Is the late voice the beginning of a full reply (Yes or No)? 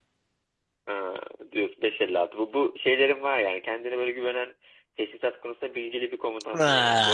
Yes